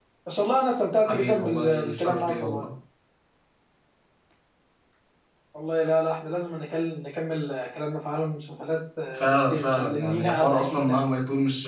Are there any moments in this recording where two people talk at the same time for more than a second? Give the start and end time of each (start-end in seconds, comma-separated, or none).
1.1-2.6, 9.2-11.1